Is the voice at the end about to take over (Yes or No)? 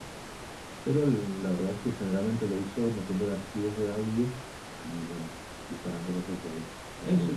Yes